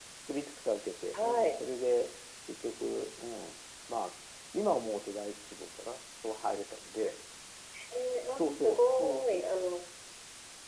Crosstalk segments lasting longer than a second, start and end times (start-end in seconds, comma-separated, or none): 8.4-9.6